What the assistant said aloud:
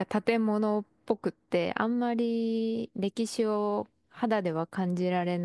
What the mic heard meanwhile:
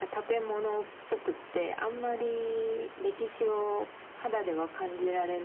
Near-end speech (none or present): none